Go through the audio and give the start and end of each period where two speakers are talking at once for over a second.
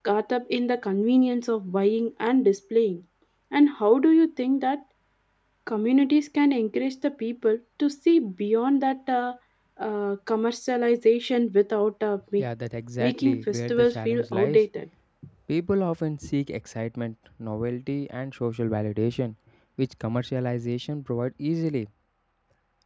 13.0-14.6

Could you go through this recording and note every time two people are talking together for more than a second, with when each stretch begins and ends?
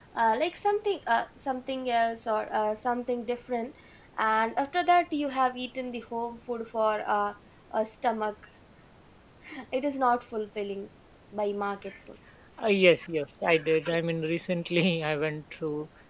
none

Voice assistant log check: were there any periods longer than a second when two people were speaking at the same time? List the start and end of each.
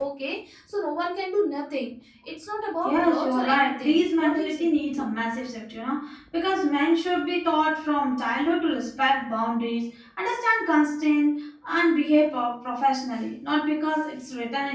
2.8-4.7

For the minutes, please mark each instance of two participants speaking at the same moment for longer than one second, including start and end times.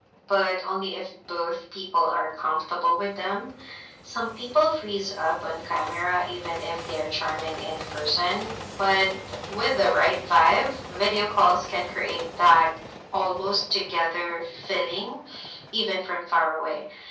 none

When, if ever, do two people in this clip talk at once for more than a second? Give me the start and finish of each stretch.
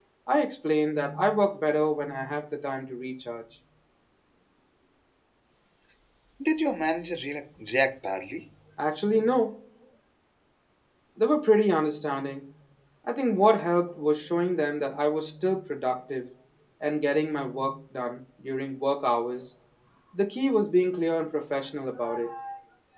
none

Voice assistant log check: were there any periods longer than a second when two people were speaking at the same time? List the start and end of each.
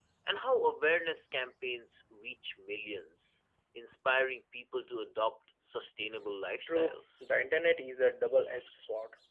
none

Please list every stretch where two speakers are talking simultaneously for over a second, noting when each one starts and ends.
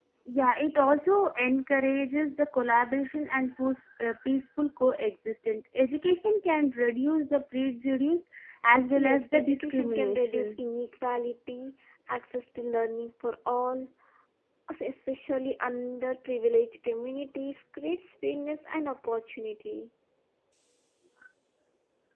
9.0-10.6

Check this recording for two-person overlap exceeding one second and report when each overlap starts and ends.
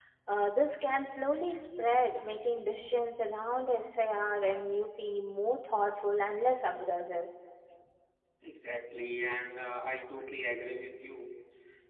none

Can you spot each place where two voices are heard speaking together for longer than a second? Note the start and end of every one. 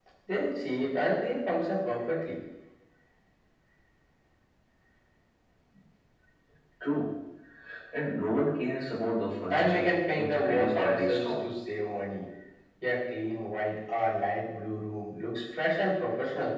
9.5-11.4

